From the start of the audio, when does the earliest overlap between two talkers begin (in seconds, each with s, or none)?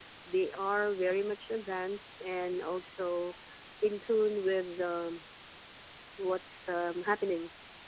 none